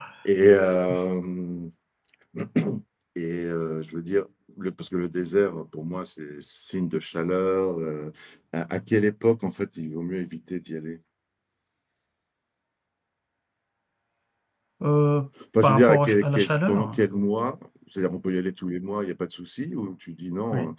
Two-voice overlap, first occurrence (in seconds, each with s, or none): 15.6 s